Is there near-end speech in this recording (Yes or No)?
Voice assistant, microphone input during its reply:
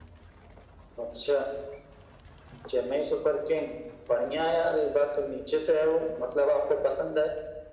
No